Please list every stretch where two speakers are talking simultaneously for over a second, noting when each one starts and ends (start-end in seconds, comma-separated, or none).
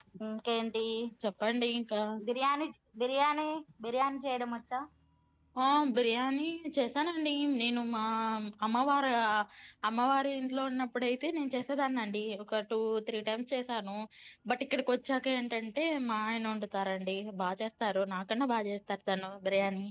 none